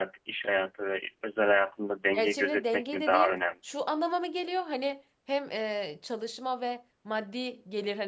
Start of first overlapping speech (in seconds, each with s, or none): 2.1 s